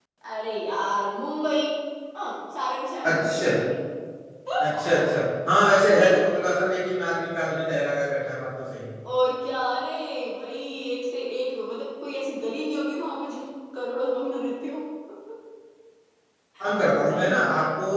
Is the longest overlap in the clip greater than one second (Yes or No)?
No